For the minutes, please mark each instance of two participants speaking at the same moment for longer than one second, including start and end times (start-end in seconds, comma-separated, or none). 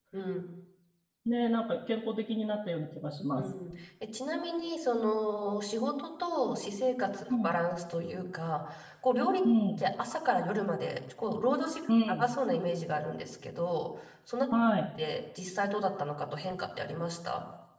none